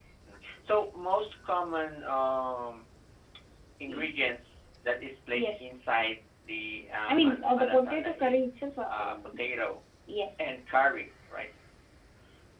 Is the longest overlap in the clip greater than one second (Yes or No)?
Yes